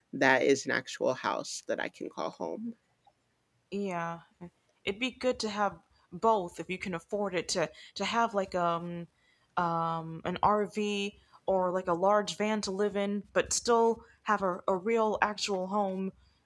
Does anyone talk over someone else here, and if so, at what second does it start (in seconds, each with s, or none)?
none